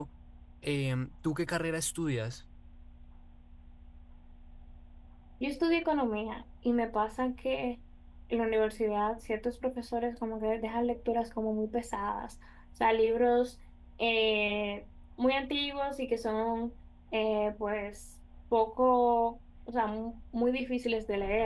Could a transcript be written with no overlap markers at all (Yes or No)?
Yes